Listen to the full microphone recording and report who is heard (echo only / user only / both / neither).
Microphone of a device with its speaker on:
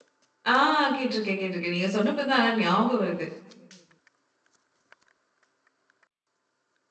user only